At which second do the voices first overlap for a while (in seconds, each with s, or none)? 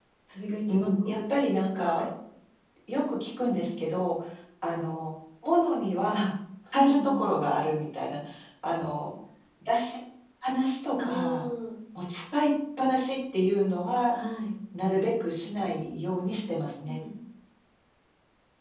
0.7 s